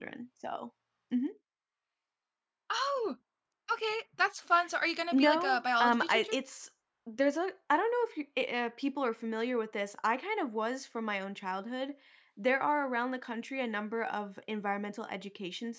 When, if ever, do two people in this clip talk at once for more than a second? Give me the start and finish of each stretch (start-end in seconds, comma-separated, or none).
5.1-6.3